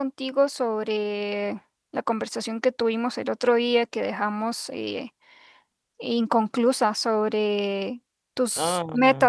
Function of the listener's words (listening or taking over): listening